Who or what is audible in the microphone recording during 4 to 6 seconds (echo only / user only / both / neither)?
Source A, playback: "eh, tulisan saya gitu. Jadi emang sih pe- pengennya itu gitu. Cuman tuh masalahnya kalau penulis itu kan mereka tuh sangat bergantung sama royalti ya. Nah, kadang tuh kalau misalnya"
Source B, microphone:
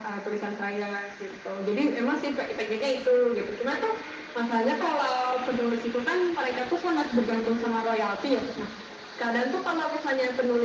echo only